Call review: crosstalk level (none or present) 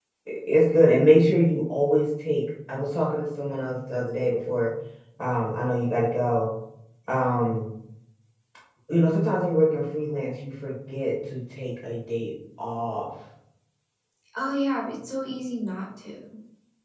none